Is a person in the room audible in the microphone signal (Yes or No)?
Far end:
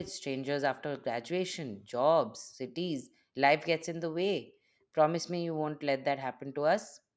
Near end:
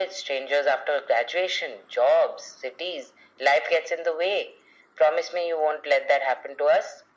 No